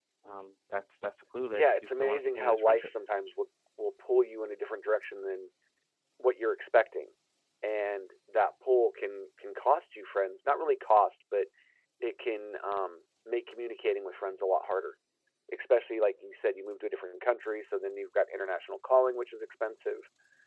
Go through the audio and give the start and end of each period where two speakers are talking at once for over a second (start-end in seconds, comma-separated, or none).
1.5-2.9